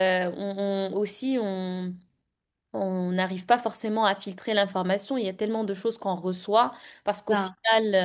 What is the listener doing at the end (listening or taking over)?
listening